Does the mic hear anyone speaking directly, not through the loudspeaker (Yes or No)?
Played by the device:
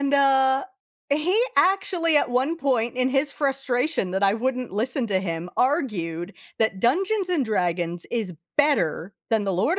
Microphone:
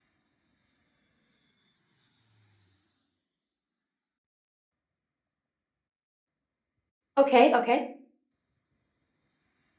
Yes